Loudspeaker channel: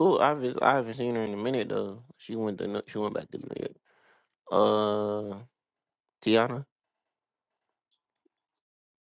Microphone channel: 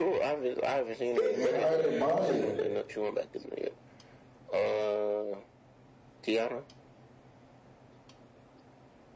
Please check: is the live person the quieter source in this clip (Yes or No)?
No